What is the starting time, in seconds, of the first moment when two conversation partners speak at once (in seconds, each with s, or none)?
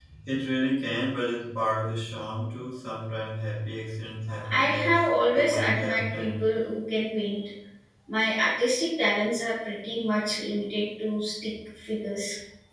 4.4 s